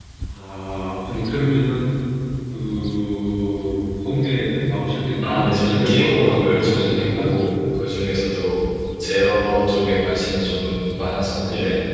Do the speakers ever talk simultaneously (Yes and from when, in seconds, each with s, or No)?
Yes, from 5.2 s